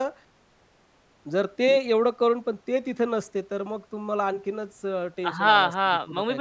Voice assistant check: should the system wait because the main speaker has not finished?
No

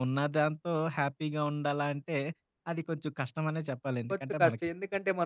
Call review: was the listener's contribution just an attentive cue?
No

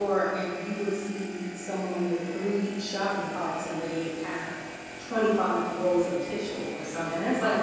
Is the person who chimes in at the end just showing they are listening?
Yes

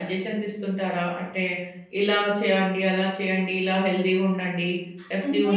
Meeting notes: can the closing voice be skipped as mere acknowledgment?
No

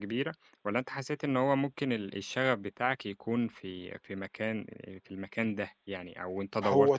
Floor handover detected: Yes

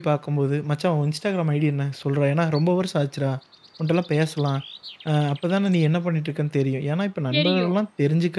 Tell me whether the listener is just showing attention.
Yes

